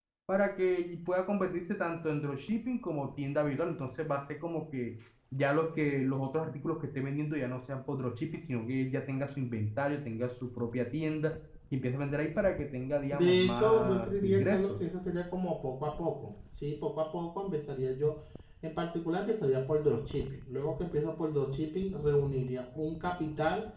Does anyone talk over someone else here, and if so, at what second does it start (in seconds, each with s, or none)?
13.1 s